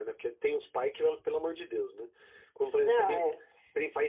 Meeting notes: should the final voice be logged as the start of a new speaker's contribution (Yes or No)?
No